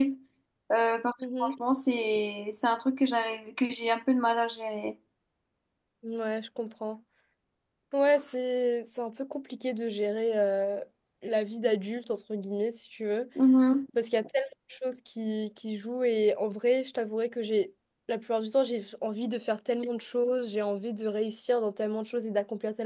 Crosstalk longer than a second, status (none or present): none